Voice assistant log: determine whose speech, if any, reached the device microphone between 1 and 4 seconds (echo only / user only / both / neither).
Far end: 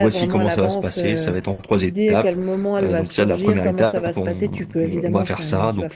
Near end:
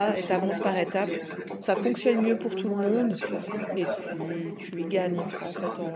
both